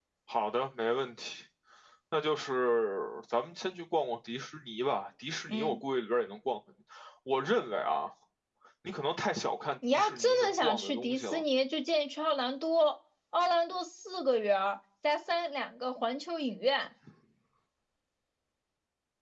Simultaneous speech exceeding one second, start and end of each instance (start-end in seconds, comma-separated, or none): 9.9-11.4